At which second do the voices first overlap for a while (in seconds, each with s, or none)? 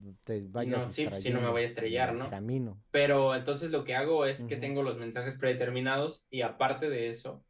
0.6 s